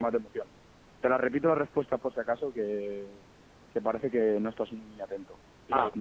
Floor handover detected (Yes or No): No